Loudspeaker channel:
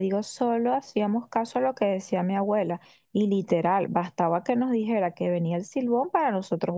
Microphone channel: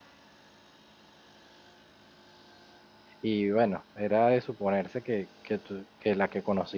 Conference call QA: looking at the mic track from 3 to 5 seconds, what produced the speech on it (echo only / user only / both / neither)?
user only